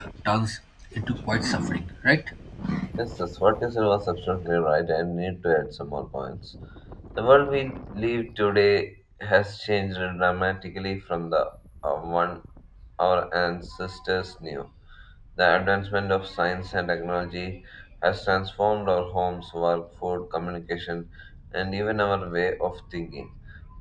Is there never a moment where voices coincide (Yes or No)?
Yes